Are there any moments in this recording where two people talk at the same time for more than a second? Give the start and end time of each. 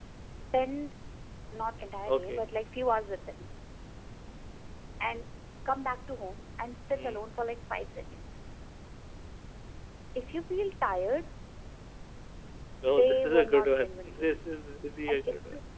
12.9-14.4

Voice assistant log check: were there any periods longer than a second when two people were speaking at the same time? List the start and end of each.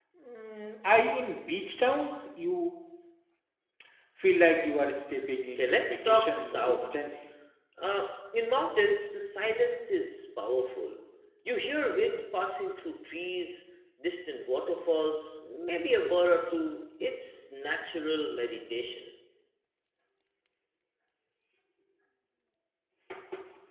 5.6-7.0

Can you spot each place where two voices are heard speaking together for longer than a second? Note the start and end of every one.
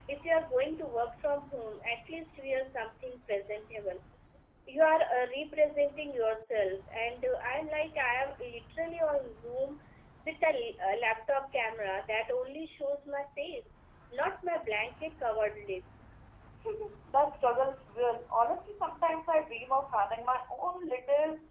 none

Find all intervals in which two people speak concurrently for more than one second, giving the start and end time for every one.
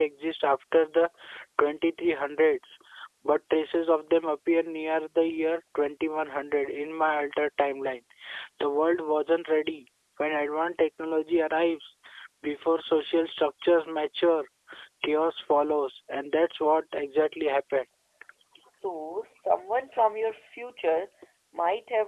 none

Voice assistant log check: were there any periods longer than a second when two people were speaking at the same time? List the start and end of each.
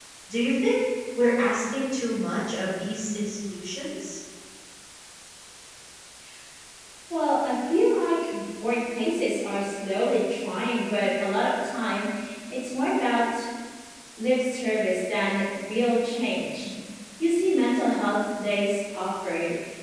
none

